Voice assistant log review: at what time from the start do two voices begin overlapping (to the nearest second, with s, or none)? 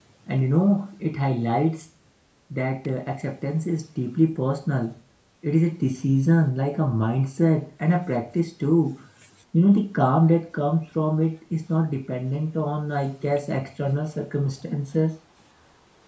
none